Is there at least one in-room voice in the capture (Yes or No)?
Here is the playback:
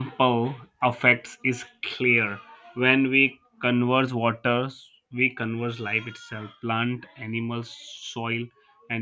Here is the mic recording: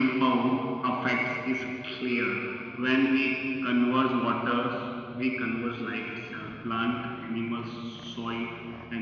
No